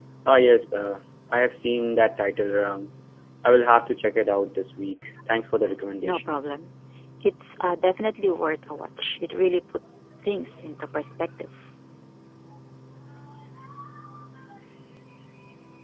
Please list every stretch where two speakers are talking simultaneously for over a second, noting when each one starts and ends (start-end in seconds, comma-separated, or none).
none